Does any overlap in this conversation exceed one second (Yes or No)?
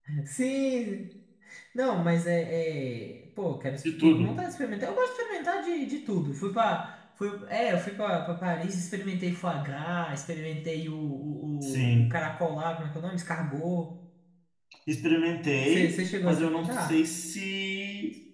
Yes